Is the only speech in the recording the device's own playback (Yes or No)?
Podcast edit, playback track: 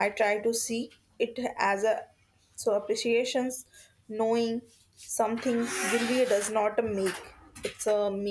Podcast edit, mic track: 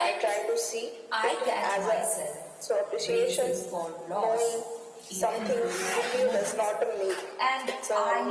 No